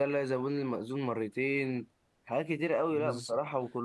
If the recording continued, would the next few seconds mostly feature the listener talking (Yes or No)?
No